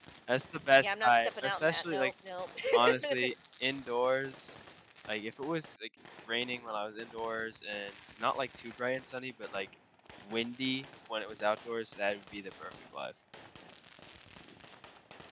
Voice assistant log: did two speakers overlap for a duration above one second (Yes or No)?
Yes